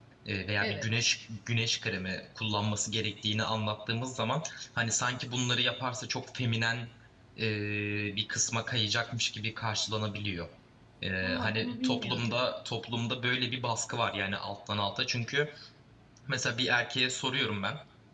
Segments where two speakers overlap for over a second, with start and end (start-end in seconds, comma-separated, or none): 11.2-12.4